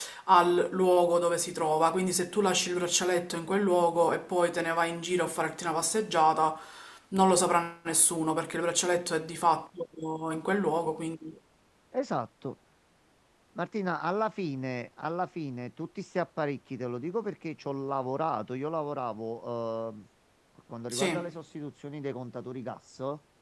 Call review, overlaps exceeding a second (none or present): none